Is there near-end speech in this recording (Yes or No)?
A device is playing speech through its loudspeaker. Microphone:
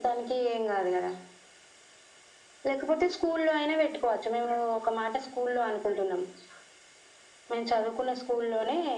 No